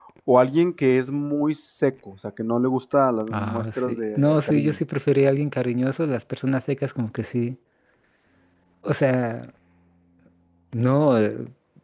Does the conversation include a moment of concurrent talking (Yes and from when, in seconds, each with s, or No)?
Yes, from 3.3 s